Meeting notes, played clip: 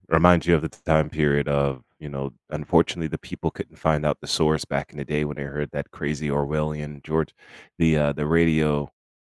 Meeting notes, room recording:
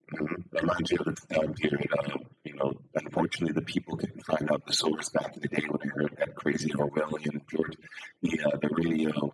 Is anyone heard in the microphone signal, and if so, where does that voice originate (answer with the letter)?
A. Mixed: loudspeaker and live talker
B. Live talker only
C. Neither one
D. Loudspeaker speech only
D